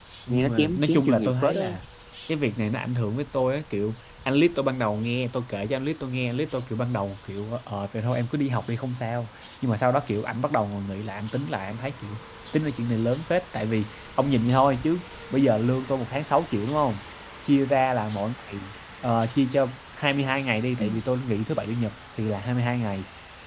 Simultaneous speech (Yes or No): Yes